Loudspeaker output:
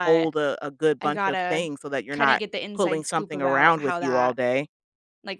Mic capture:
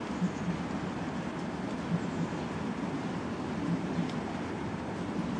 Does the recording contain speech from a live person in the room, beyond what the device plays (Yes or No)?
No